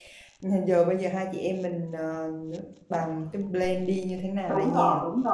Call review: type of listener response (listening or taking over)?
taking over